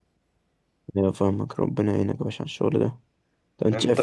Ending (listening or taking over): listening